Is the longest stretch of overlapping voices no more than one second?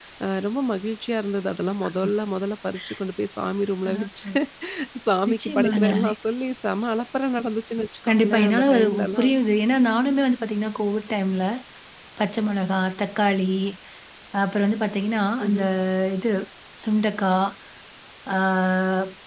No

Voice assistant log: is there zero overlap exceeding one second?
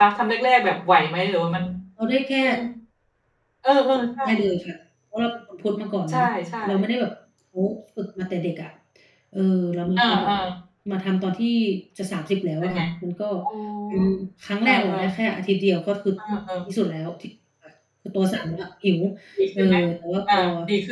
Yes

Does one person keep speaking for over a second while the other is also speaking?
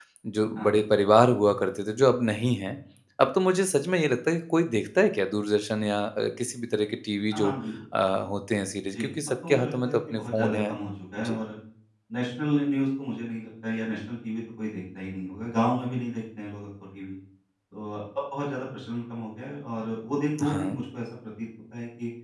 Yes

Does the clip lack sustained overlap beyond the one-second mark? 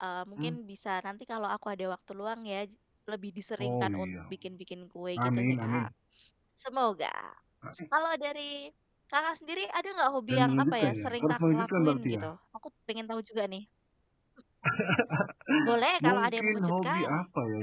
No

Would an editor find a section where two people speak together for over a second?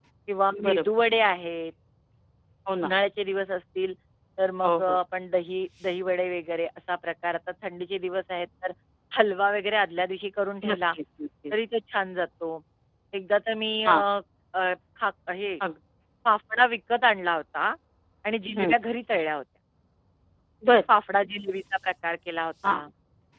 No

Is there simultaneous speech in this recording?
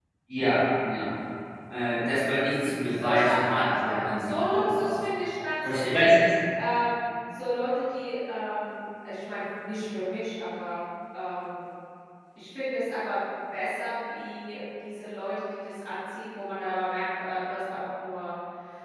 Yes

